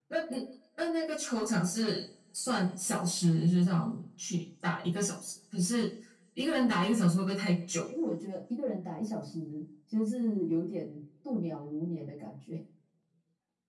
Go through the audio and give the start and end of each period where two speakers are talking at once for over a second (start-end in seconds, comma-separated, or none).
none